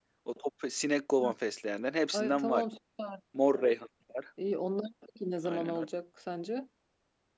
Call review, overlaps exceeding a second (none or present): none